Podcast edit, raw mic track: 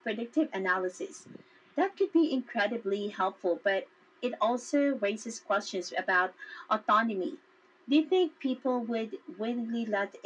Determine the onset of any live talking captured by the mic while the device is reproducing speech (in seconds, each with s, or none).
none